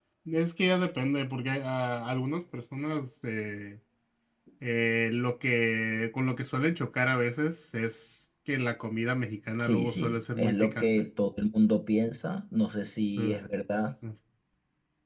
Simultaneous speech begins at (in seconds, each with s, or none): 9.6 s